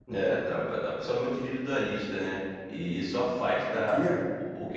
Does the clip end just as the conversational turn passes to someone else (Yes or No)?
No